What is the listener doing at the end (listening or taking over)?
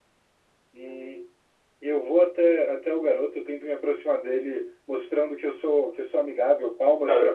taking over